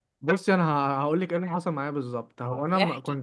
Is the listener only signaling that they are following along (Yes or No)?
Yes